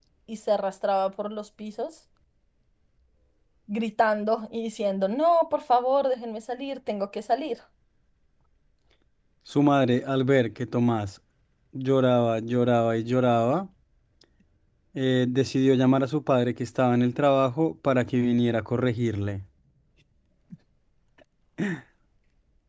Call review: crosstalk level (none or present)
none